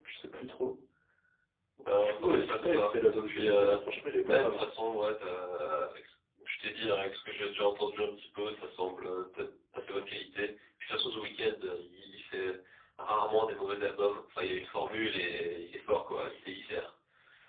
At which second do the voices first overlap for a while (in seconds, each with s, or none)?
2.0 s